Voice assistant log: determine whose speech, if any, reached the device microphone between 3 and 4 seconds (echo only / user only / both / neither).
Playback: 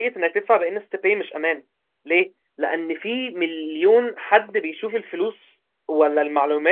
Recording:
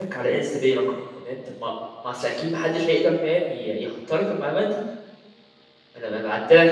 user only